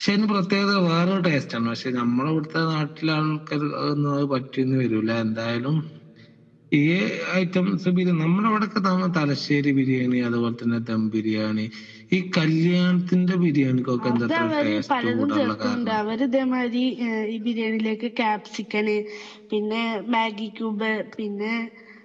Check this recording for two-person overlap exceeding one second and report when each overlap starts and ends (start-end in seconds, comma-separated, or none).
14.0-16.0